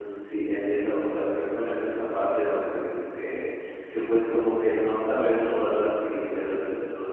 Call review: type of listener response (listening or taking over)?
listening